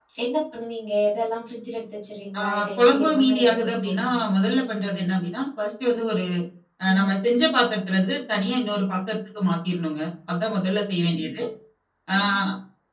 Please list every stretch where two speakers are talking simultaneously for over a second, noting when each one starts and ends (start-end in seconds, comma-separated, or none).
2.4-4.2